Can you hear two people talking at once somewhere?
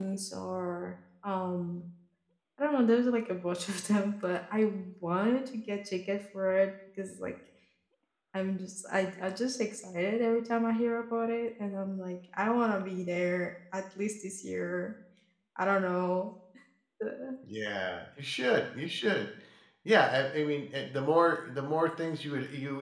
No

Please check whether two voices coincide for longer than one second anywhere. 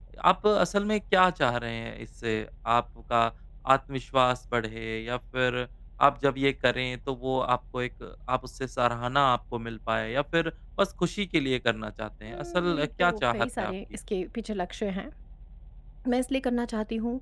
Yes, from 12.3 s

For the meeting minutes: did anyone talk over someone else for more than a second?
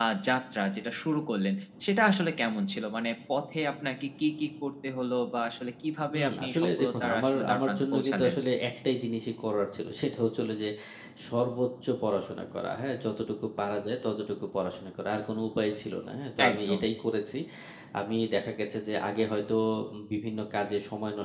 Yes, from 6.1 s

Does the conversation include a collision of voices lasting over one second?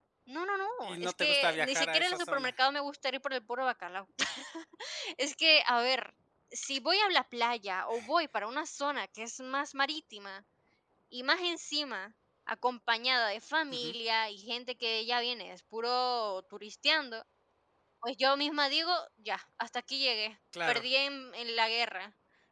Yes, from 0.8 s

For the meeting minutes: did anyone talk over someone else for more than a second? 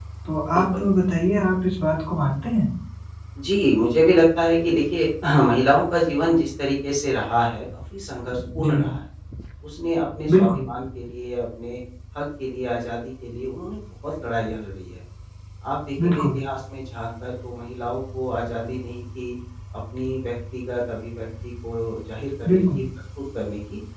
No

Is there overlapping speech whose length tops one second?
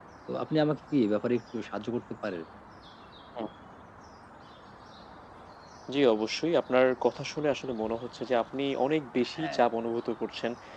No

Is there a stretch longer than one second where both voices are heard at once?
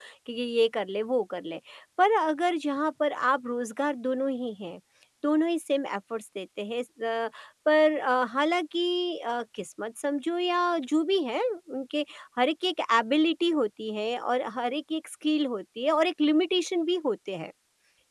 No

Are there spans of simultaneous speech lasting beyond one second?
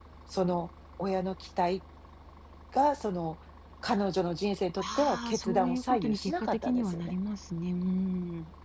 Yes, from 4.8 s

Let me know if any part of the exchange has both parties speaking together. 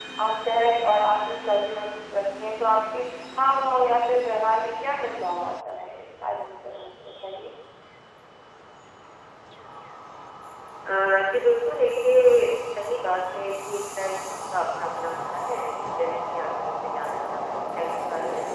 No

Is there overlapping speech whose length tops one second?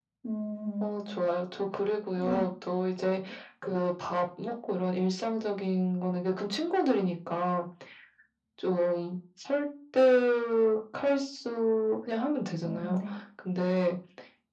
No

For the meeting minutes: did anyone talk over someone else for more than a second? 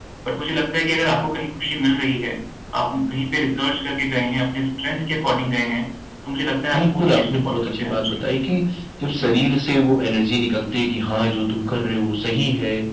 Yes, from 6.7 s

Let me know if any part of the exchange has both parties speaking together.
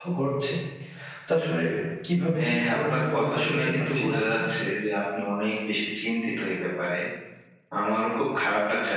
Yes, from 2.4 s

